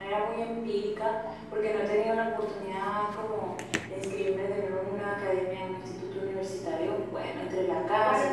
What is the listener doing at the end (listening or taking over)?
taking over